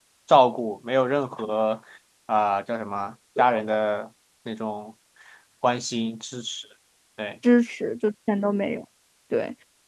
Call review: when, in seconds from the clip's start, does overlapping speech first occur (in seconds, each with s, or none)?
none